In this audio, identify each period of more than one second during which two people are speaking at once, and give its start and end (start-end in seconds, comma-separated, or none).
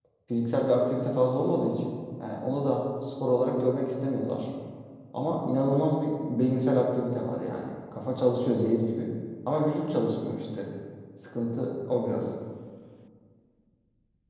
none